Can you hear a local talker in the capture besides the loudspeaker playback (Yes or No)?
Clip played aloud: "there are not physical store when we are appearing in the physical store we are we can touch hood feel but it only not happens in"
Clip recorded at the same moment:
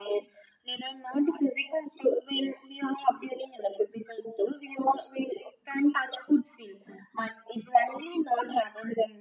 No